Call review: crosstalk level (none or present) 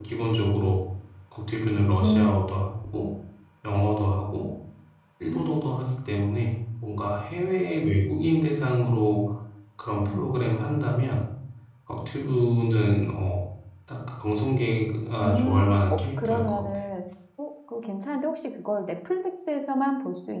present